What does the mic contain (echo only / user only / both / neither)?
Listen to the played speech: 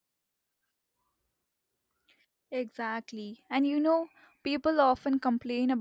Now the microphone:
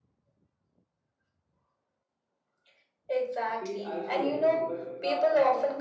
both